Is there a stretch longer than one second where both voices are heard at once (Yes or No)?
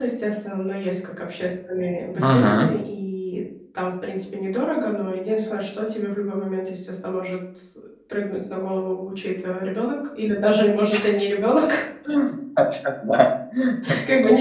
No